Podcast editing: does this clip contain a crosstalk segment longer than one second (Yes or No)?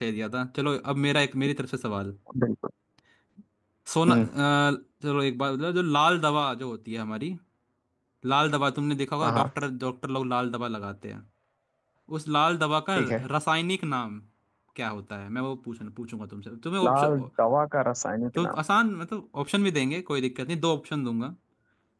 No